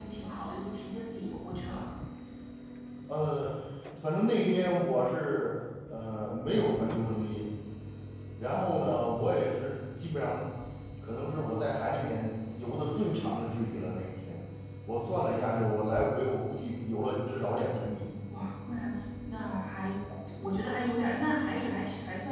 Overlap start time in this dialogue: none

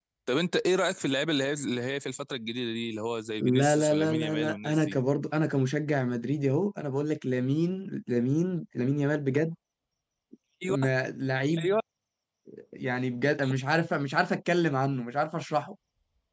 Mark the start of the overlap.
3.4 s

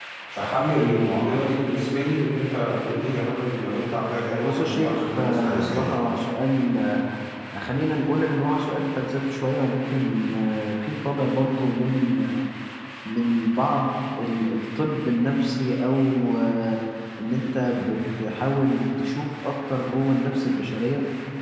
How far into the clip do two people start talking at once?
4.4 s

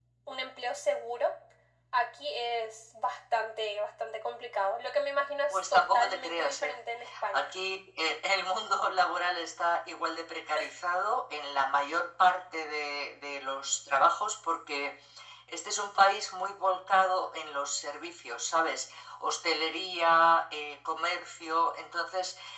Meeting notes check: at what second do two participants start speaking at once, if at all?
5.5 s

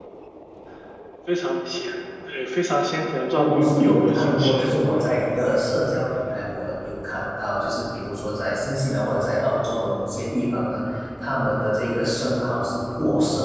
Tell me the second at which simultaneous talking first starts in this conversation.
3.4 s

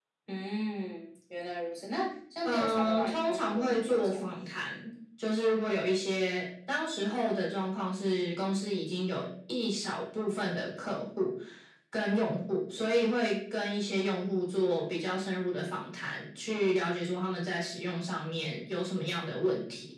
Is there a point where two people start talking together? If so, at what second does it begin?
2.4 s

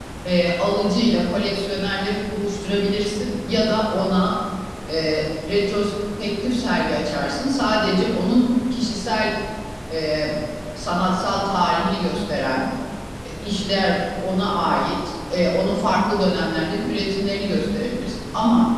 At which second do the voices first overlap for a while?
none

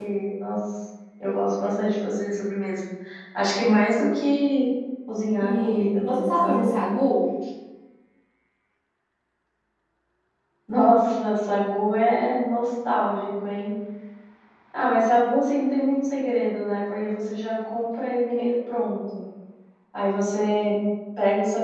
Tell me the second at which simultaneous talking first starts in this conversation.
5.4 s

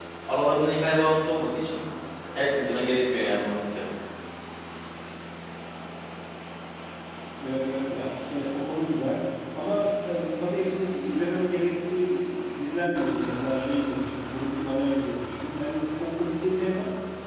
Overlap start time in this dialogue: none

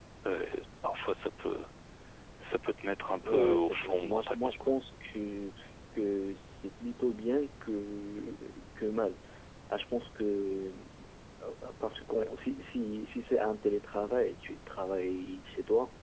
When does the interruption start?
3.2 s

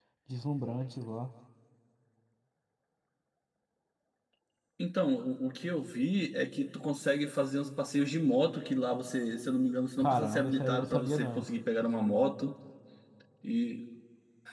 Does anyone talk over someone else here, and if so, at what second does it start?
10.0 s

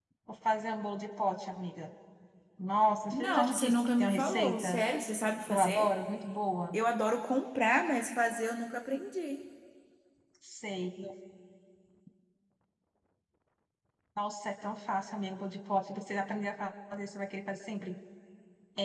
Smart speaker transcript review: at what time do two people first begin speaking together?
3.1 s

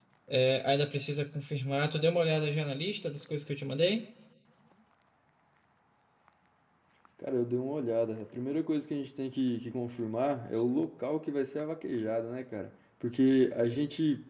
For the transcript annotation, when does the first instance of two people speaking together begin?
none

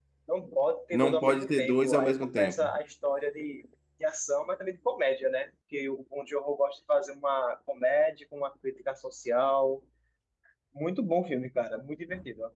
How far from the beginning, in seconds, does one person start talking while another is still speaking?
0.9 s

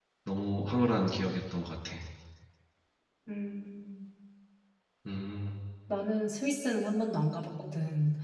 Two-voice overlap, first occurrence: none

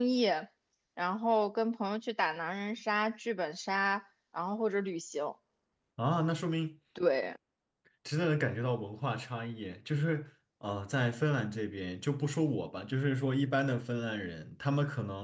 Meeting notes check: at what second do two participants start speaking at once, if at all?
none

